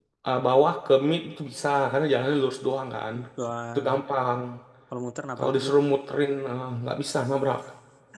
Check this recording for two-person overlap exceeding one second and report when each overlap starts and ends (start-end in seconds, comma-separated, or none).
none